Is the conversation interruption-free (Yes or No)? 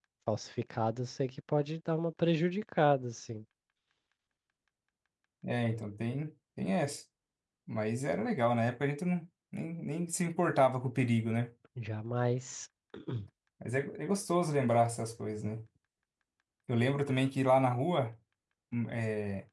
Yes